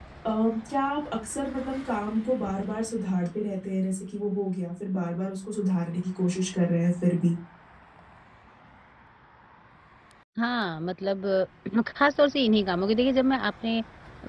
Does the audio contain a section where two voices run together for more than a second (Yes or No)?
No